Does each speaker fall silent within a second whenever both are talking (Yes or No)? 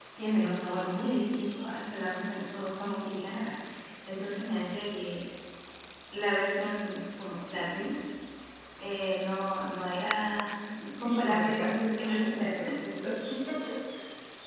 No